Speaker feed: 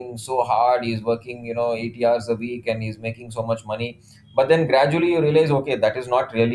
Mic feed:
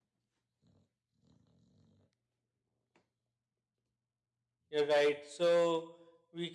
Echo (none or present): none